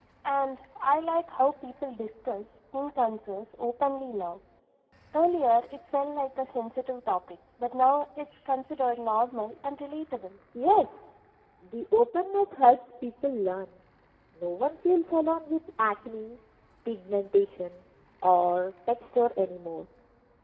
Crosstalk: none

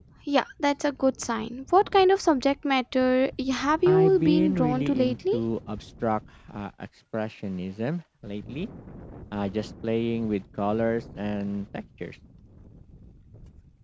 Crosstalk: present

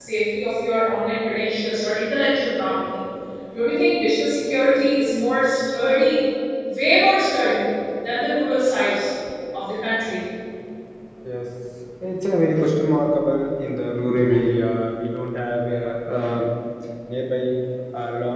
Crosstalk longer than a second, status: none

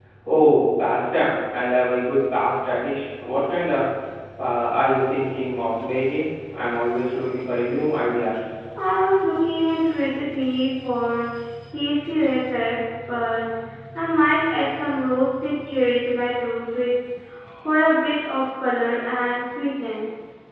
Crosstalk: none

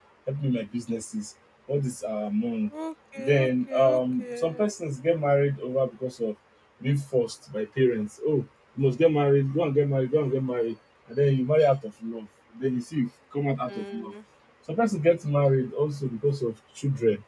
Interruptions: present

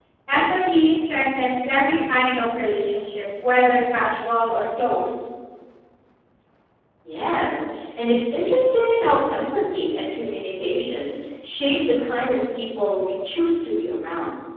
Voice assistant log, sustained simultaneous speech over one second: none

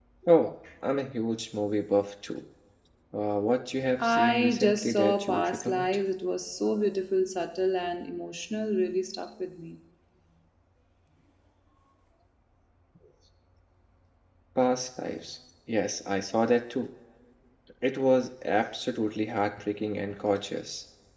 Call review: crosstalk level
present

